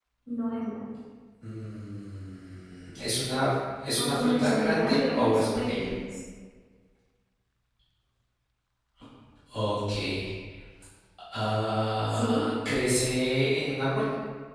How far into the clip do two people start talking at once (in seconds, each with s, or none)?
4.0 s